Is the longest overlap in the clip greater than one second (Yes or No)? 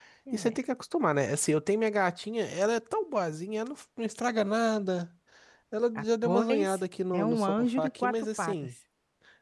Yes